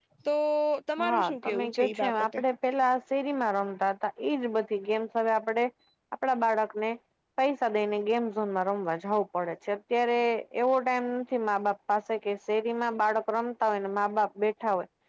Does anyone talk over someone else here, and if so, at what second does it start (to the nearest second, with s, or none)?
1 s